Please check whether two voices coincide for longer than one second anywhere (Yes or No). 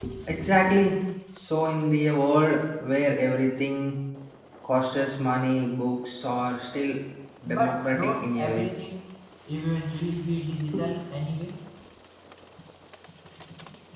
Yes